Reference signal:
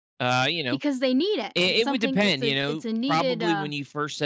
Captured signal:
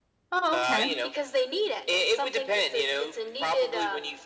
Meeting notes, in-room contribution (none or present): present